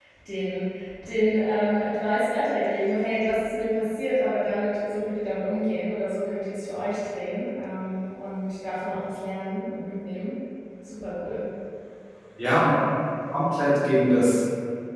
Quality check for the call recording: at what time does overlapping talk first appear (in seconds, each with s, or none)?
none